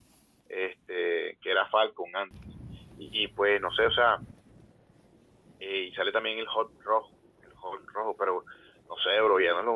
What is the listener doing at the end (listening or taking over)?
listening